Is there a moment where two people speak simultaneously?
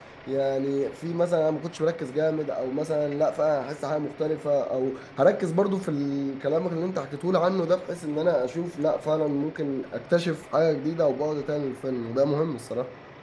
No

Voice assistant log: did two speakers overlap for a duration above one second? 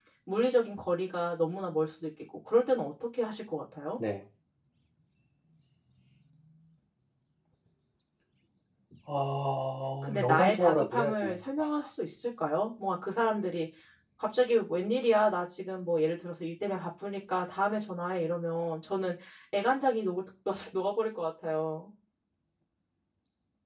Yes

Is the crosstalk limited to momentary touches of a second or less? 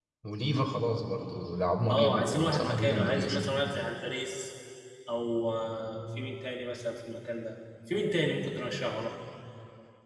No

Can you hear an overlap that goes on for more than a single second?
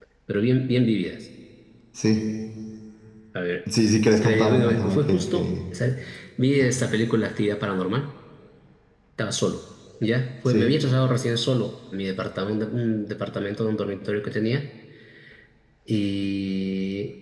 Yes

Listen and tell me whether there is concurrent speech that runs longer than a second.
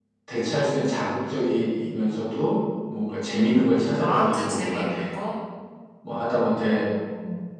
Yes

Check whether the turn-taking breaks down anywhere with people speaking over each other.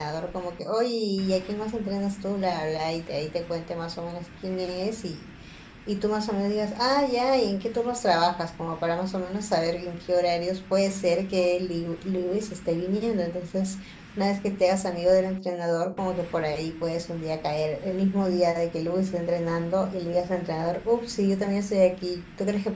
No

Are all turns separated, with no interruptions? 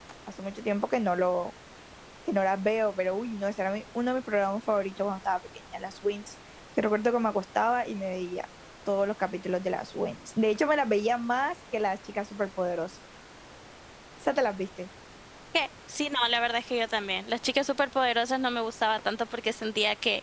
Yes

